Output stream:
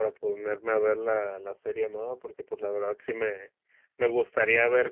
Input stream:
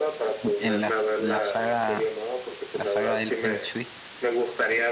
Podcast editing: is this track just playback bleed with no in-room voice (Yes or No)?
No